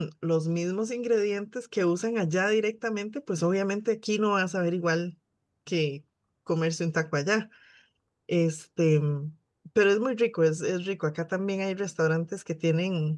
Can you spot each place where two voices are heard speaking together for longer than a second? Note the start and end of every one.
none

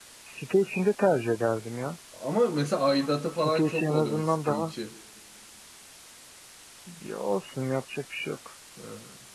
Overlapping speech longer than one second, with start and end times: 3.3-4.7

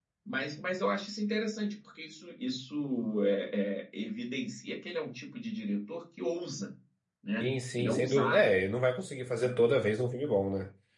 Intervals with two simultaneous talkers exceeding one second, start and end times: 7.4-8.6

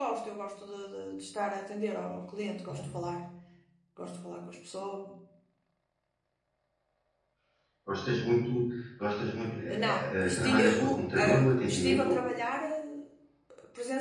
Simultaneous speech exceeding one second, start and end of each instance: 9.7-12.1

